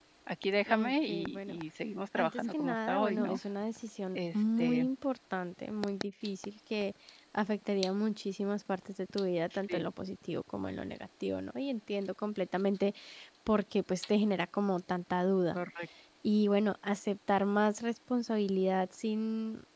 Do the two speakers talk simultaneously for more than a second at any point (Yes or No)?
Yes